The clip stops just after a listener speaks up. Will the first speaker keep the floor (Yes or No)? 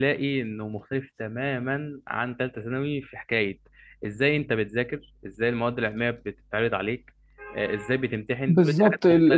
No